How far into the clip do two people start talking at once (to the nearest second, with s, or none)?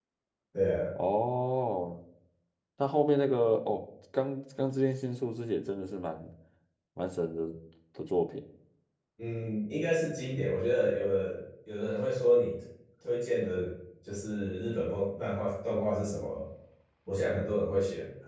none